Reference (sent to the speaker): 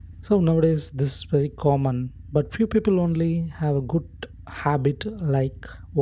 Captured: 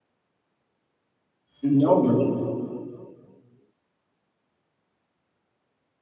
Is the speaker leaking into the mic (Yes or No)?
No